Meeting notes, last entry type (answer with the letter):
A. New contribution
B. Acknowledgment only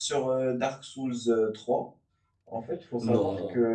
B